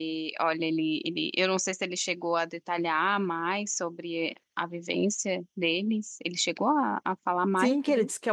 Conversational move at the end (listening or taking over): taking over